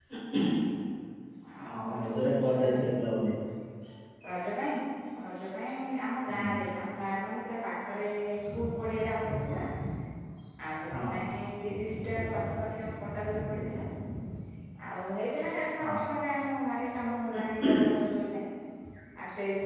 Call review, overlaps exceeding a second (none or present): present